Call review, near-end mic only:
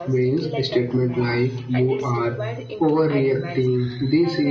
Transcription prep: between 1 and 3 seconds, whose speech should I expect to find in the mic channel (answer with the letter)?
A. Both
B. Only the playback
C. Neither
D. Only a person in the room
A